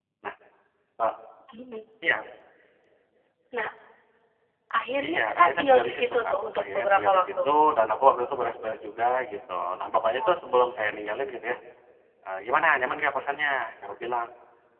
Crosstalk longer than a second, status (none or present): present